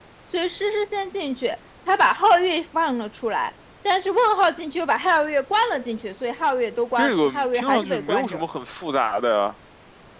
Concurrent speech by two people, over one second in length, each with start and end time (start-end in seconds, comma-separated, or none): 7.0-8.4